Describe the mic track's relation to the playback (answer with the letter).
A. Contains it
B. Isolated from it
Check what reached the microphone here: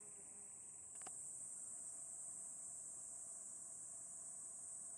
B